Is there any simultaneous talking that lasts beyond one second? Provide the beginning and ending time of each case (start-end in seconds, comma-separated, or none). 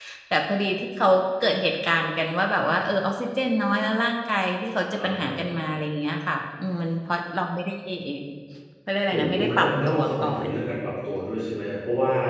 9.1-10.5